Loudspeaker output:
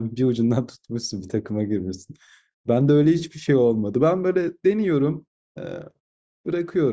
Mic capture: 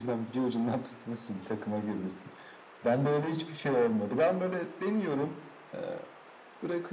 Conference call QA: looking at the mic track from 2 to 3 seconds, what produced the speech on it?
echo only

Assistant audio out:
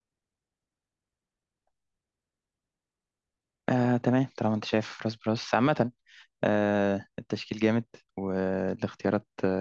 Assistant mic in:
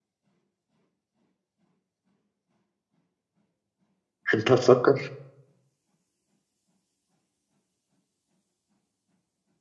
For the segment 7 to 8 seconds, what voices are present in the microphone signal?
neither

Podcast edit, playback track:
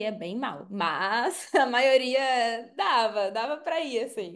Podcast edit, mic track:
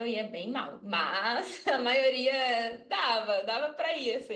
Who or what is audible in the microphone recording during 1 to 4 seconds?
echo only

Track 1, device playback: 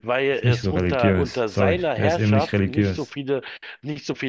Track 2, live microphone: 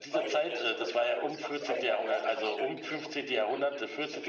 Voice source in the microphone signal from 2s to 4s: both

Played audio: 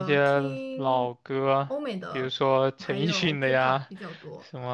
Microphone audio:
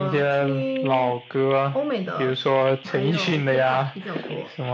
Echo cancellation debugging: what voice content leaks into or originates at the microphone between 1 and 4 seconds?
echo only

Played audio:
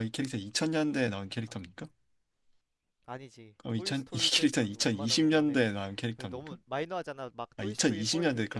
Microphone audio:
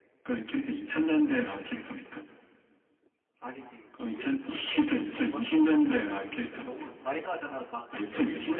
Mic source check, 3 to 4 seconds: echo only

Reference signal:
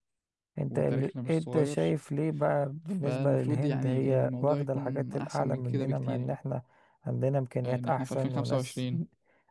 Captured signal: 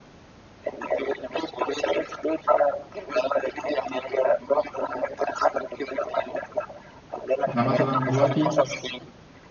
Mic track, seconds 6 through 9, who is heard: both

